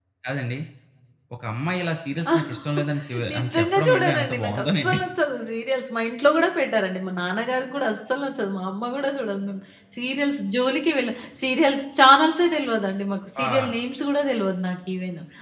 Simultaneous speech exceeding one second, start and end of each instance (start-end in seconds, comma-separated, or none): 3.3-5.0